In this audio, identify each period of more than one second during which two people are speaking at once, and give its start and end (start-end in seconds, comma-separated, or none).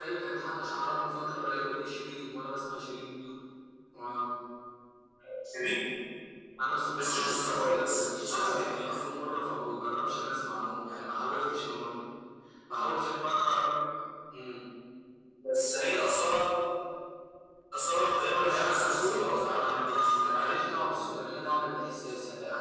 6.9-9.0, 18.4-20.6